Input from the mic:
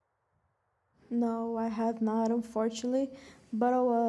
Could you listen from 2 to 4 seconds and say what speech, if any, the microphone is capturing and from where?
user only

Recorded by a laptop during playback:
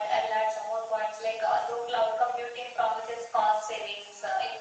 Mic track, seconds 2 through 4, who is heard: echo only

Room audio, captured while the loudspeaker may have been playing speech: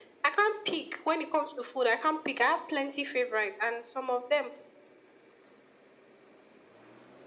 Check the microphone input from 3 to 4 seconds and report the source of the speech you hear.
echo only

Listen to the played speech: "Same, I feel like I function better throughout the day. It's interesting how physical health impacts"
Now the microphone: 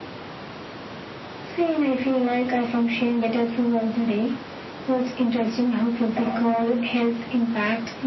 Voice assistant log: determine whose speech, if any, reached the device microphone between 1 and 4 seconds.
echo only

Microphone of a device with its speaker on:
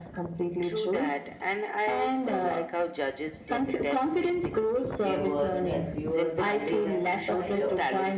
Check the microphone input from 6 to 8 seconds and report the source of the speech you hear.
both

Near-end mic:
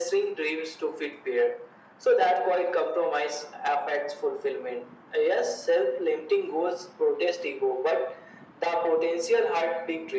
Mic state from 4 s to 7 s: echo only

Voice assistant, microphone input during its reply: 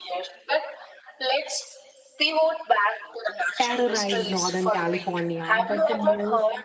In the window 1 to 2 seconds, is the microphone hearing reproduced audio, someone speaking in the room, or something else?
echo only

